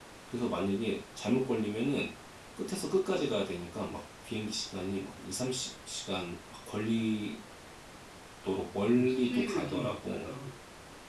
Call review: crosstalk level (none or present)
present